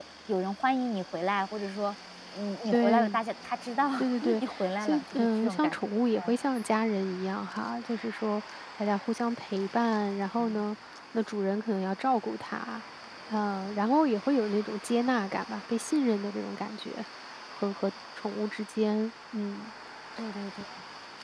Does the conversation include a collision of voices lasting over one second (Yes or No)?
Yes